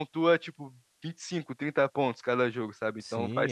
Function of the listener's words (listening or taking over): taking over